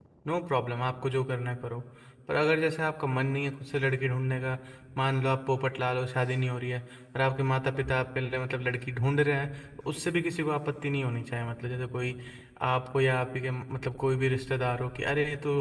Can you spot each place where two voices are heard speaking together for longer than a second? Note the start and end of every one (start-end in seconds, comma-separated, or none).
none